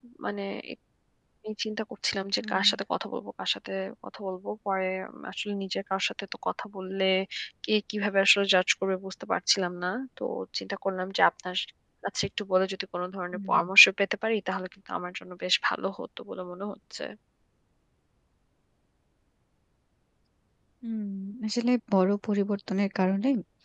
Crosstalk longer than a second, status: none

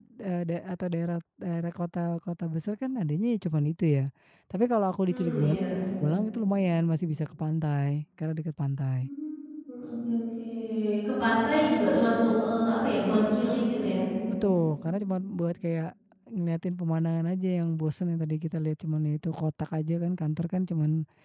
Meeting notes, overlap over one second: none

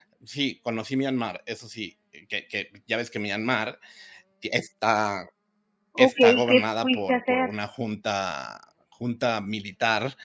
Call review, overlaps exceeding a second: present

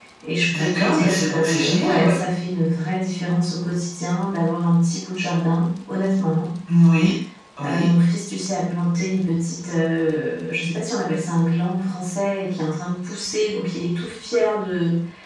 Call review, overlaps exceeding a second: present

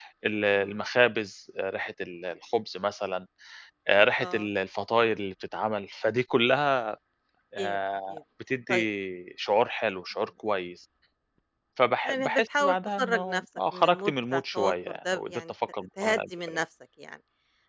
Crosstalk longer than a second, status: present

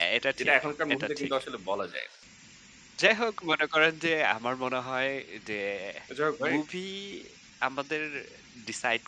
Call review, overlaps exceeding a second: none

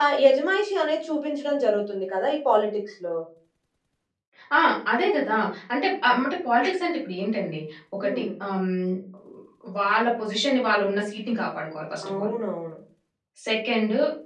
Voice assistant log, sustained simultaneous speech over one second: none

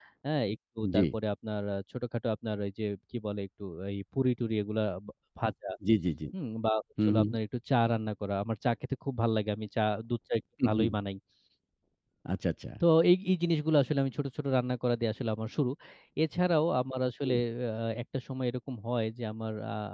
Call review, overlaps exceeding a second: none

